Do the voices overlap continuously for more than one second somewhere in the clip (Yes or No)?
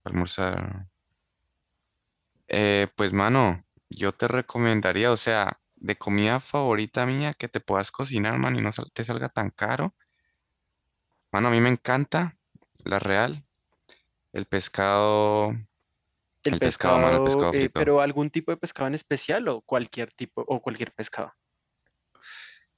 Yes